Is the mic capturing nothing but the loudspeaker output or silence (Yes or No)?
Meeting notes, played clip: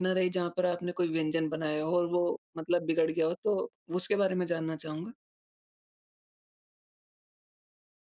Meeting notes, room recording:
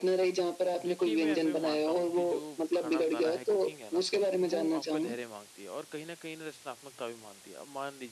No